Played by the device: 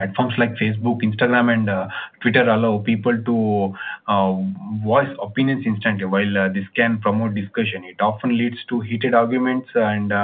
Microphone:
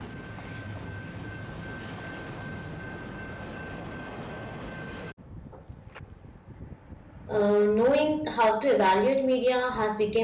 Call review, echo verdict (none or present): none